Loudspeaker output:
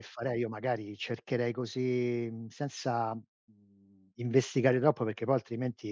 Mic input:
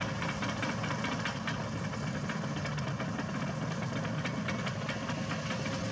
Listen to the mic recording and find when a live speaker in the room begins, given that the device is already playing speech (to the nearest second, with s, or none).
none